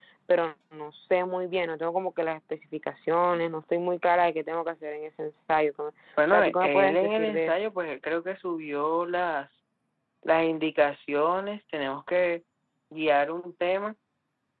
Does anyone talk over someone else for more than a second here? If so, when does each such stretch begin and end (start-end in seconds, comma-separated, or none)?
6.3-7.6